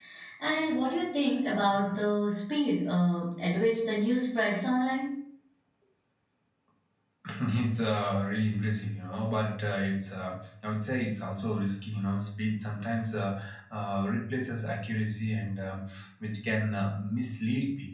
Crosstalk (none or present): none